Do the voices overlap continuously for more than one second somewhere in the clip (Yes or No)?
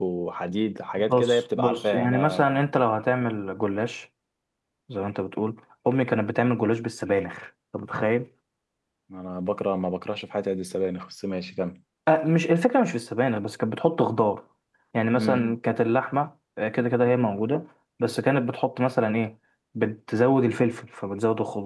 Yes